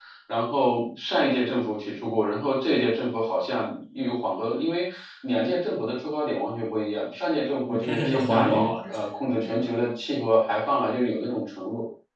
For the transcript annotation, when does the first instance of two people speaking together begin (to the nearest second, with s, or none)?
8 s